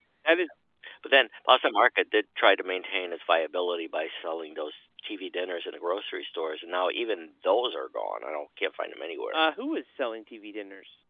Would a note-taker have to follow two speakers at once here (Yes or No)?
No